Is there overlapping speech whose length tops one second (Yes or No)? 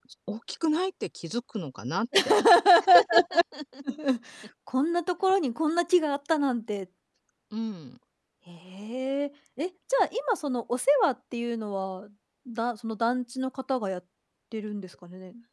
No